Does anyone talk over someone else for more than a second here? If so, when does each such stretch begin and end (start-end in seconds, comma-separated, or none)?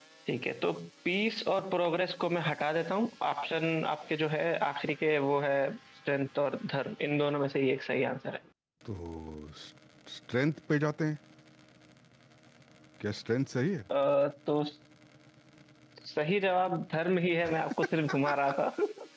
none